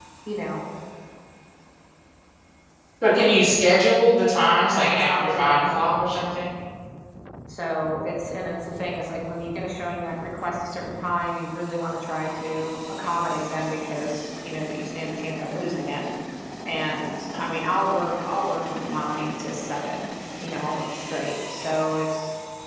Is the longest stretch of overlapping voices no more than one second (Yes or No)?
No